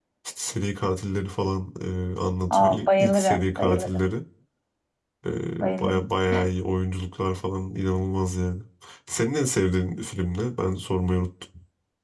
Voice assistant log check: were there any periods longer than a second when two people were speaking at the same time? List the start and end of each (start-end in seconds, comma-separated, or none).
2.5-4.1